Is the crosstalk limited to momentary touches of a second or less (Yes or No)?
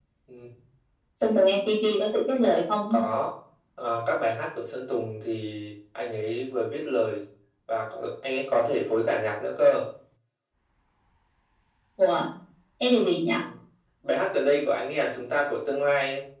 Yes